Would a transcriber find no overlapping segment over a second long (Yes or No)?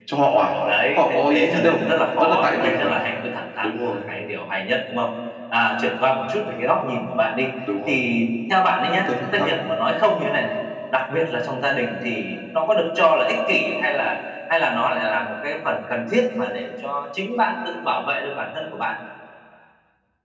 No